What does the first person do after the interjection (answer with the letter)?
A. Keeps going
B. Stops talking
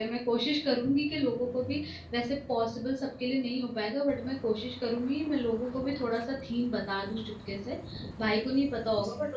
A